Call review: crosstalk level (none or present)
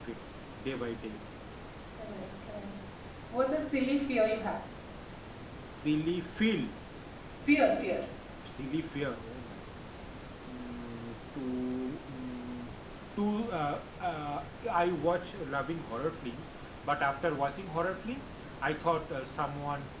none